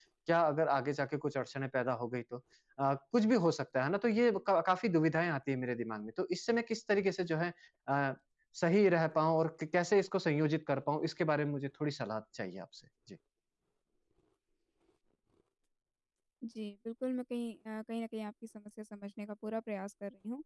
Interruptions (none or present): none